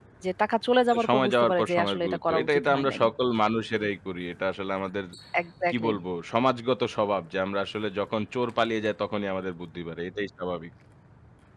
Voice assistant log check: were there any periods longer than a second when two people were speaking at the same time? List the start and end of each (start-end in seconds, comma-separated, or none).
0.9-3.0